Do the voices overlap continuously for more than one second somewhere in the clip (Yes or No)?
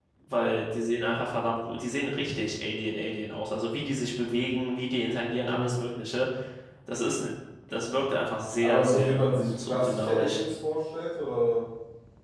Yes